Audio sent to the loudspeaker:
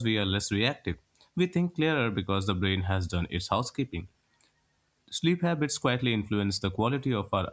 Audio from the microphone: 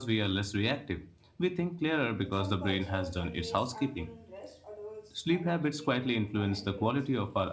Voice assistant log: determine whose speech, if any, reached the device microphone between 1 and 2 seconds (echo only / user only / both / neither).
echo only